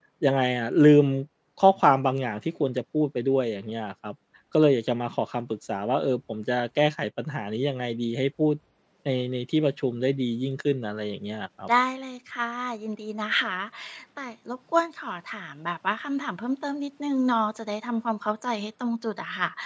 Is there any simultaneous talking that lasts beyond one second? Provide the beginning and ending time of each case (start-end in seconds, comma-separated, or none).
none